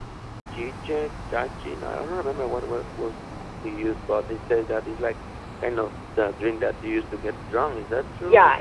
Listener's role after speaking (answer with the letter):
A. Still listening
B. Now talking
B